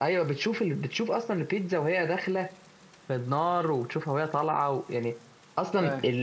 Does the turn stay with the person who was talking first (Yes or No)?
Yes